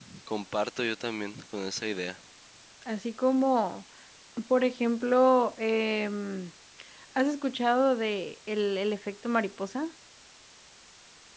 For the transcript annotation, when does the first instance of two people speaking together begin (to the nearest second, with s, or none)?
none